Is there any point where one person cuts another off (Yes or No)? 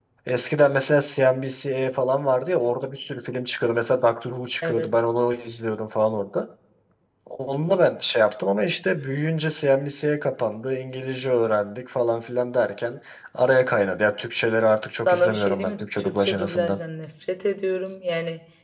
Yes